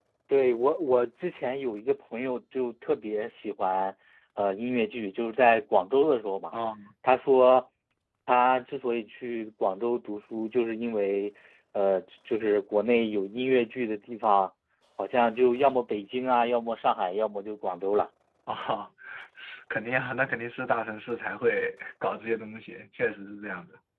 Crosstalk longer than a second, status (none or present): none